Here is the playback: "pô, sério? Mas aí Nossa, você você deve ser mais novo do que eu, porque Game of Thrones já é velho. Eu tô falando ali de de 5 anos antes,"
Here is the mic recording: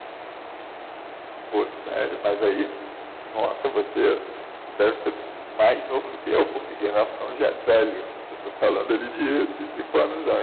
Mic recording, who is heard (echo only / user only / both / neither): echo only